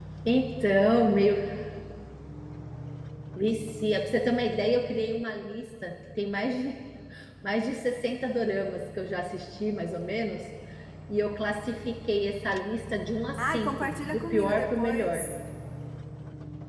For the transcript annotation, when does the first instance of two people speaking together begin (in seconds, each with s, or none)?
13.4 s